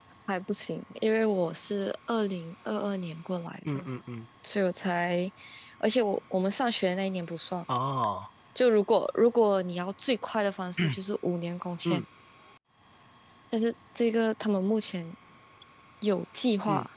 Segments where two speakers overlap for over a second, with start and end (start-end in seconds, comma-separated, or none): none